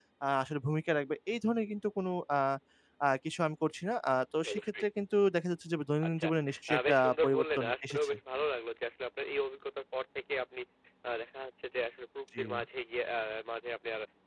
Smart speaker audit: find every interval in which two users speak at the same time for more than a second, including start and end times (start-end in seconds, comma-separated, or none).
6.7-8.1